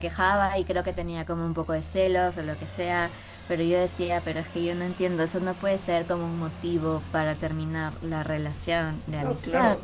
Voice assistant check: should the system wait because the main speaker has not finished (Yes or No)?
No